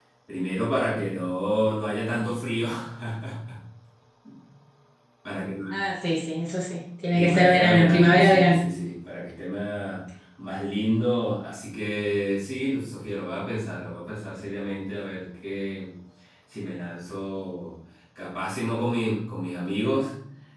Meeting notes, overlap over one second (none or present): present